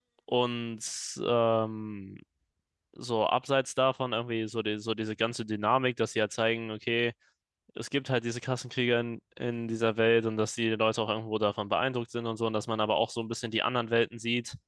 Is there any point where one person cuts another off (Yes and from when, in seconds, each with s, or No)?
No